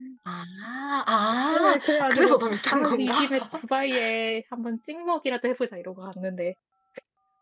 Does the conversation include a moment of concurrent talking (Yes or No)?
Yes